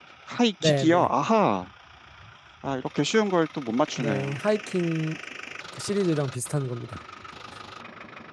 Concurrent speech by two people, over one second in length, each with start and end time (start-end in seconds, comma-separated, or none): none